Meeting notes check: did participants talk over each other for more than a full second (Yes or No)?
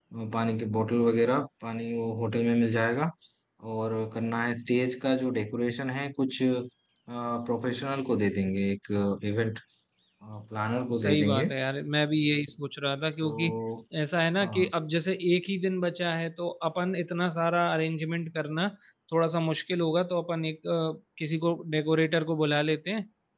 No